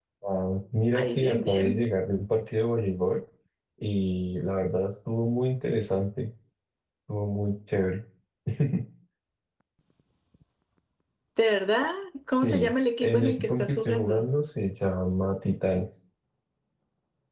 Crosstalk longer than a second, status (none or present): present